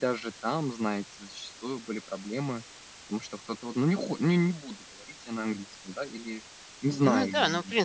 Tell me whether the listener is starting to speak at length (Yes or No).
Yes